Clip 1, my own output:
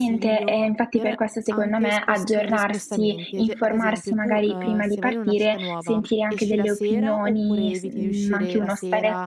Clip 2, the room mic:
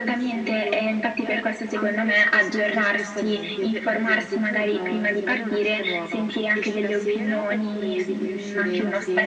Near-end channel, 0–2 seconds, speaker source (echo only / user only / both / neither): echo only